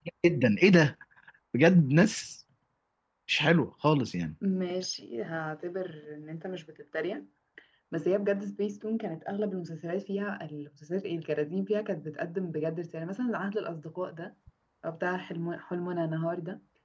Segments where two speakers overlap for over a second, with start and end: none

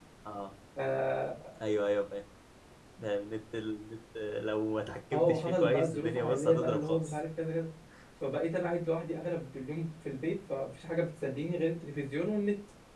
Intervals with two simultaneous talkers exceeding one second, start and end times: 5.1-7.2

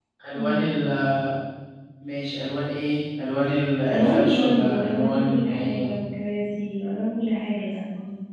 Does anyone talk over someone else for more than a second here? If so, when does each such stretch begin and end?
3.9-5.9

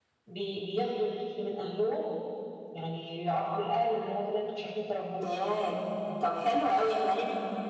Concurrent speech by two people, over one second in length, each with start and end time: none

